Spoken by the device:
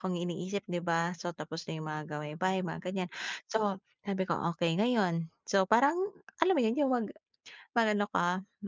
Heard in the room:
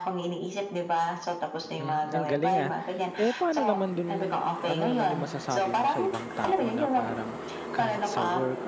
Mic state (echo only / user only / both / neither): both